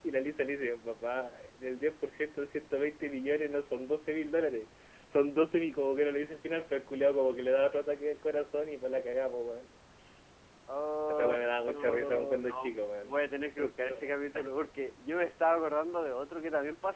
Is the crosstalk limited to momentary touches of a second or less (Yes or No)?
No